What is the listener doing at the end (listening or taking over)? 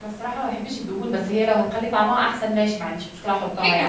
taking over